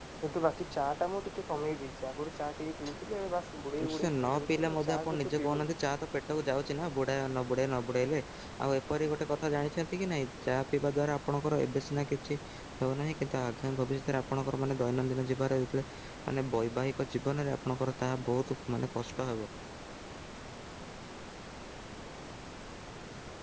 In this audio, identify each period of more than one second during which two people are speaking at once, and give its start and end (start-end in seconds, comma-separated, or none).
3.9-5.7